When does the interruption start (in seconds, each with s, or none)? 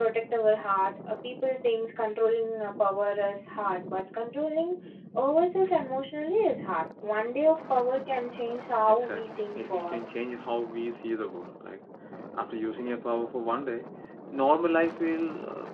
8.9 s